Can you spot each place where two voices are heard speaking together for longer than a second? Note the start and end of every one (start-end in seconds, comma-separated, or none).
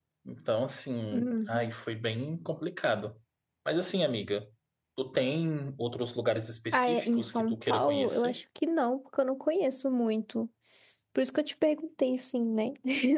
6.7-8.4